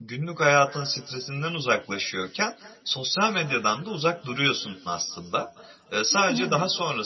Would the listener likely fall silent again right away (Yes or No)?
Yes